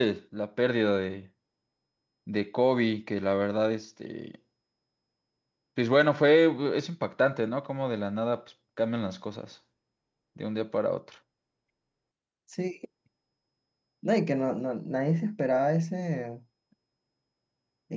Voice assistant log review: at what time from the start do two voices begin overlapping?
none

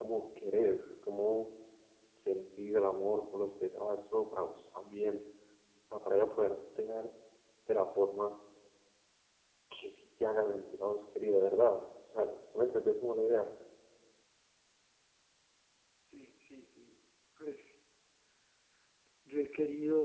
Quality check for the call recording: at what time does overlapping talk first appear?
none

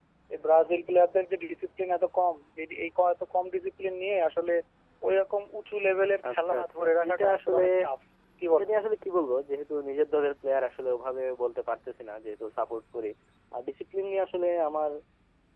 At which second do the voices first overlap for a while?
6 s

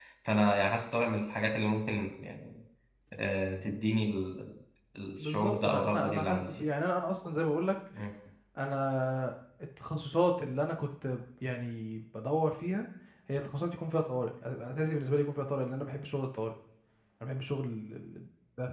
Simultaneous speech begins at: 5 s

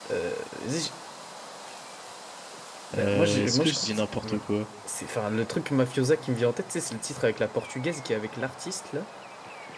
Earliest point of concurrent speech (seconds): 3 s

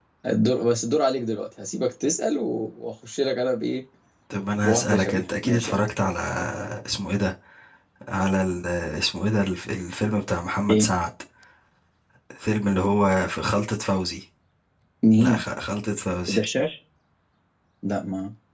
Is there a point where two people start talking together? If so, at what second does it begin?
5 s

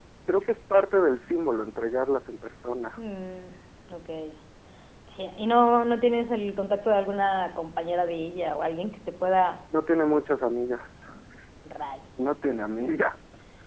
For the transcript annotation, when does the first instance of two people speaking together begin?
none

